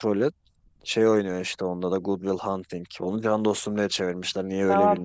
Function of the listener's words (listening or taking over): taking over